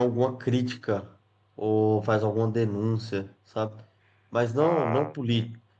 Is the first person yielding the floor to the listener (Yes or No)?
No